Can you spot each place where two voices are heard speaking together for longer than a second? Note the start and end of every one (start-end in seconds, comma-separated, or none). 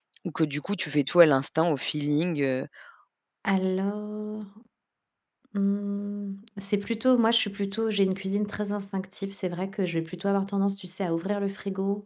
none